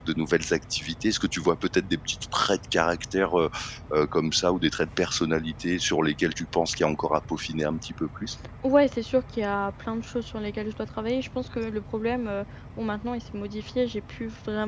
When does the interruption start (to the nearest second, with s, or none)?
none